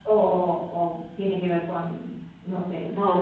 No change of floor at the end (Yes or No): No